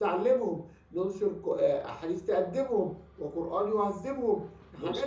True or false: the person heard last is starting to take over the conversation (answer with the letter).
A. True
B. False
A